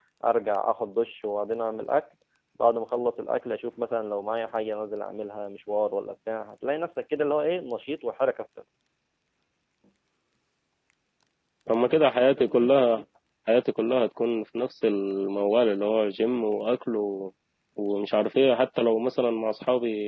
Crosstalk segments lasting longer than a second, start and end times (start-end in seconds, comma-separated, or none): none